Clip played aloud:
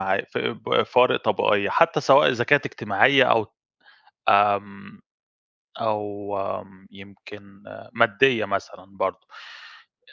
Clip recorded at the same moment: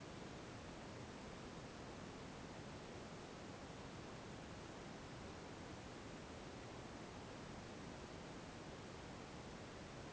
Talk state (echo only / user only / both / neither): neither